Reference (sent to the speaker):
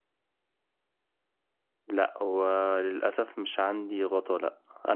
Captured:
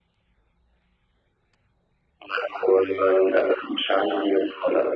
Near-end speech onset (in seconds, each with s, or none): none